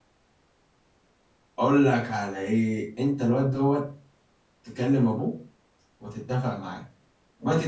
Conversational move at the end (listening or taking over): listening